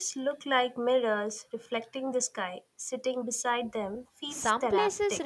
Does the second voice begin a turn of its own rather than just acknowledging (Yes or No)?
Yes